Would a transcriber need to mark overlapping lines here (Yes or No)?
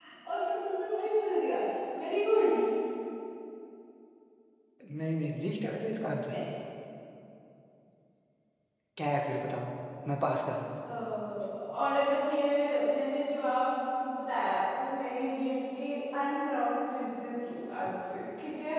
No